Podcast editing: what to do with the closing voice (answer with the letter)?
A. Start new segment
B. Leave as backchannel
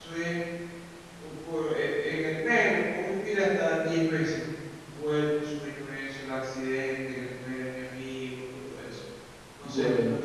A